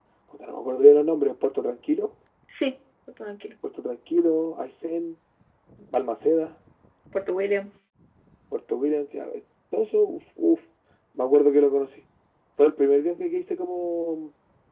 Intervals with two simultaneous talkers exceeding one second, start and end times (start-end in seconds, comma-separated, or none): none